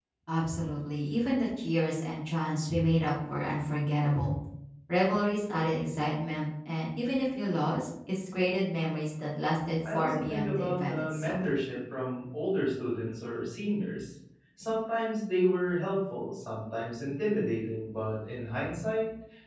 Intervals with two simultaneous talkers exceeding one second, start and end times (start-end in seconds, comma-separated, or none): 9.8-11.4